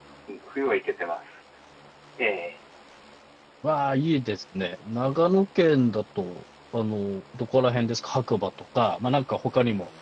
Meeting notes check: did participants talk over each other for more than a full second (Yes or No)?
No